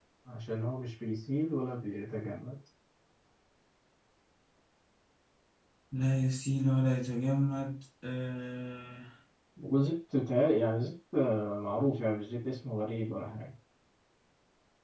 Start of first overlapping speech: none

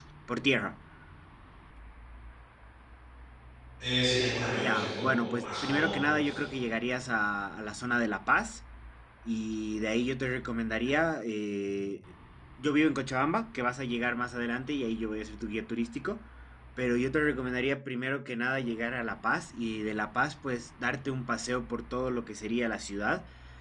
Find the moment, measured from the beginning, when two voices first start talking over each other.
4.6 s

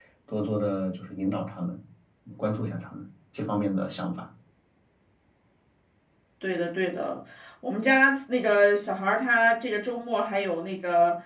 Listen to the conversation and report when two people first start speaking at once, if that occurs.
none

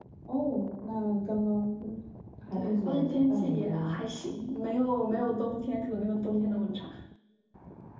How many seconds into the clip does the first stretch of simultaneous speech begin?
2.5 s

